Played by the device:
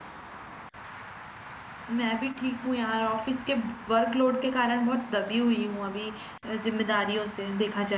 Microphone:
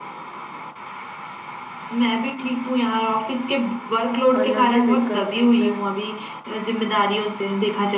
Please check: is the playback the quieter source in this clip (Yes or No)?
No